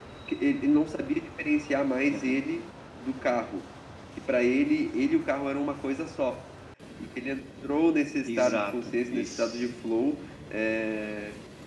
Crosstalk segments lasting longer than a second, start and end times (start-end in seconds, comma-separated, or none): 8.2-9.7